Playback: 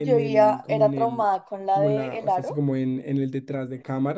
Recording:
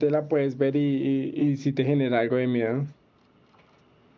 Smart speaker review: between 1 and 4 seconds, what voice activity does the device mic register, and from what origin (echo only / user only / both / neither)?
user only